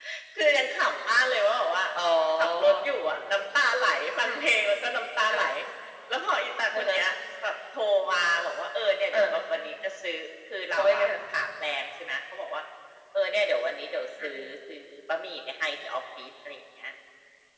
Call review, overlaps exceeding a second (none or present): none